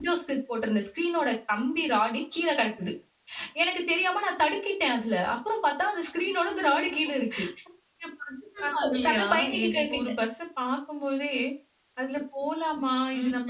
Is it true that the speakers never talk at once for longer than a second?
No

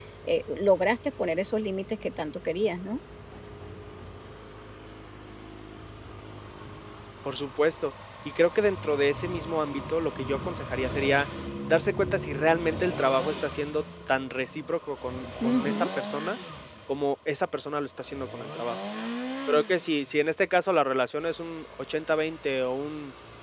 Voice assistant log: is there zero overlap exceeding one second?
Yes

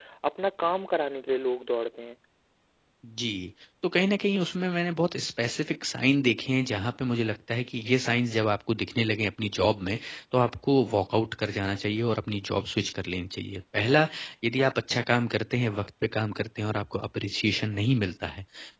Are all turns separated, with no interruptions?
Yes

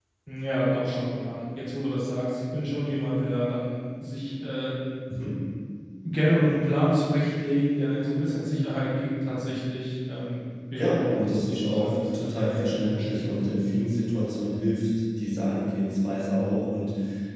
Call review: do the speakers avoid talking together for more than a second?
No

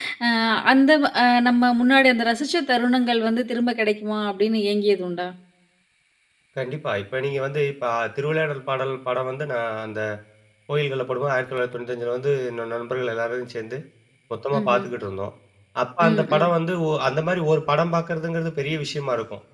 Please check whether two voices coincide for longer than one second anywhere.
No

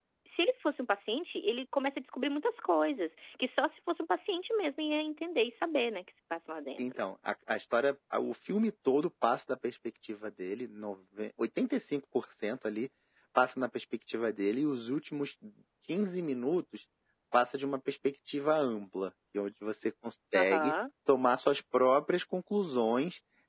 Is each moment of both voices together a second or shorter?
Yes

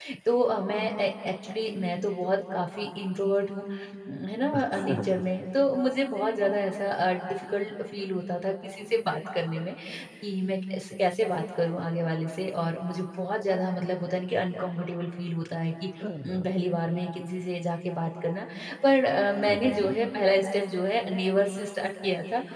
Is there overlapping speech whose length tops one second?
No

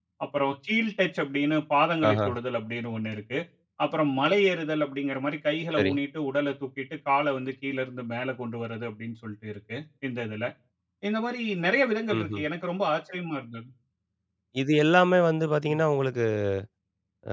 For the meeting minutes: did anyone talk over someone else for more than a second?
No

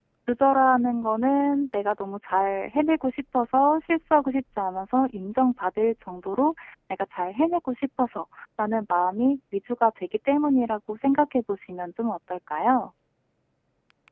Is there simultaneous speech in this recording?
No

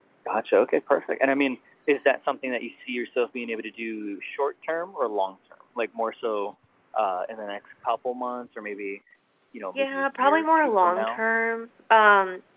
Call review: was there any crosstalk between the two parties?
Yes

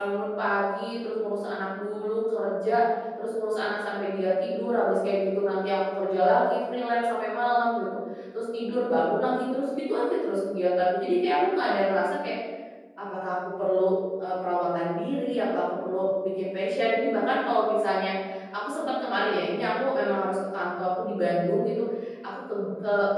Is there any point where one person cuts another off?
No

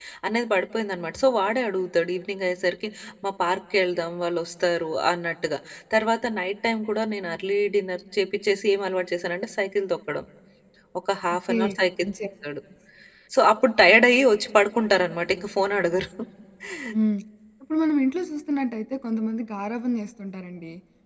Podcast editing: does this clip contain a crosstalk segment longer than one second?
No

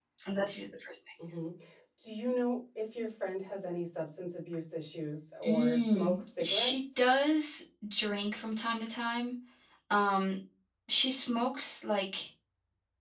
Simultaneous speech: Yes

